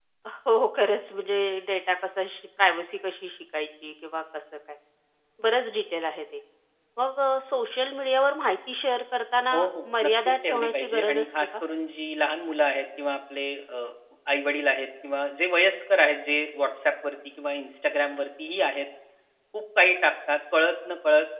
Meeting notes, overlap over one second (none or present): present